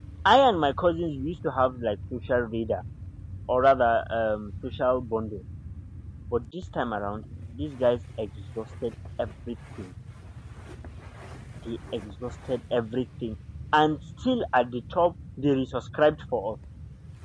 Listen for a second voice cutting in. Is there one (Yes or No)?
No